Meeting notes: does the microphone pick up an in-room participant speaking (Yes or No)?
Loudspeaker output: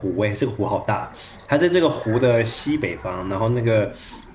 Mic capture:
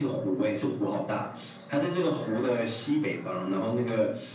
No